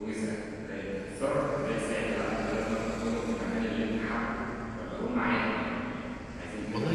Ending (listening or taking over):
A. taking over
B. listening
A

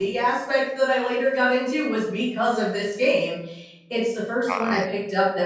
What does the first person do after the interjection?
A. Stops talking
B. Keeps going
B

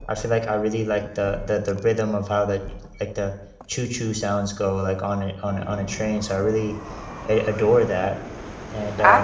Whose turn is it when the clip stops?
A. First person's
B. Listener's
B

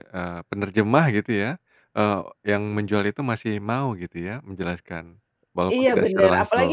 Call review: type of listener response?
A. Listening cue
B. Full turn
B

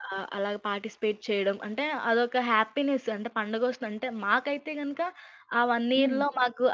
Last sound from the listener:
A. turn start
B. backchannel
B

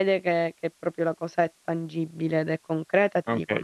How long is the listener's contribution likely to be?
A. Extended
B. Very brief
A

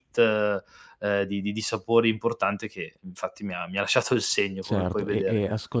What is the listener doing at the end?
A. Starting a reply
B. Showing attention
A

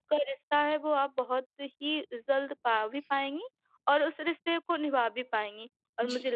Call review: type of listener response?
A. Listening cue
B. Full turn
A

